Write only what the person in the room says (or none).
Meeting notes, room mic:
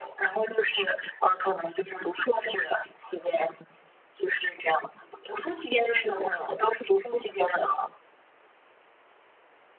none